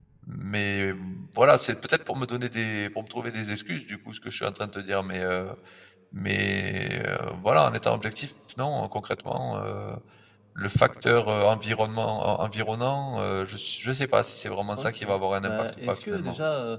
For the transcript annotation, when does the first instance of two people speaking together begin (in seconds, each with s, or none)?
14.8 s